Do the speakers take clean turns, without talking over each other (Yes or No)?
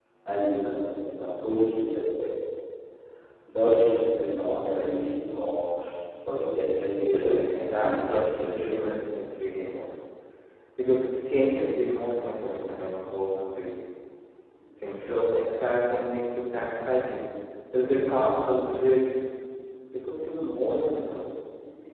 No